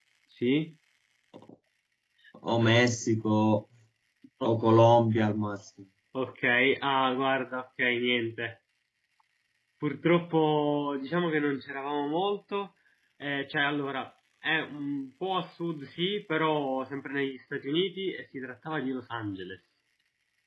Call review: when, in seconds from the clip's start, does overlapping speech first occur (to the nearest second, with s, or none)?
none